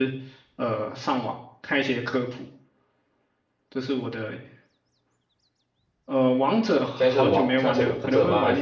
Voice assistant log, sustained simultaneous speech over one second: present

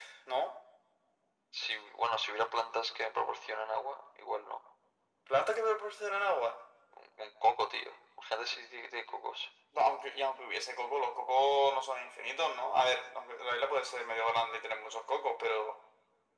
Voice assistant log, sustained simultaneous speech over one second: none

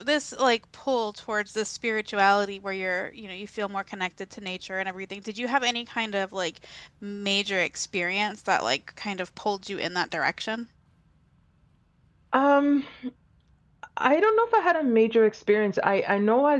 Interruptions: none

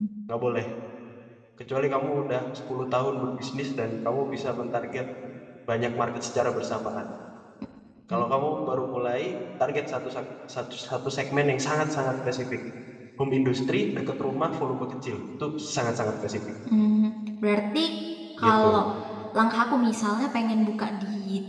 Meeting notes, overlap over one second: none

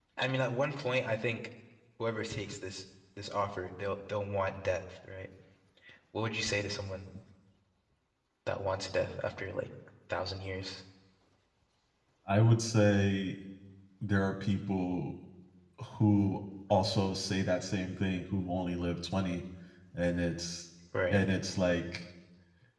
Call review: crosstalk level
none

